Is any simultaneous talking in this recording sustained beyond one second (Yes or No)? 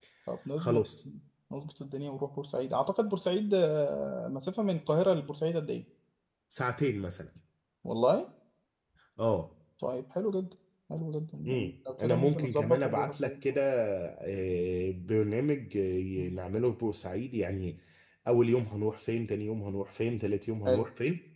Yes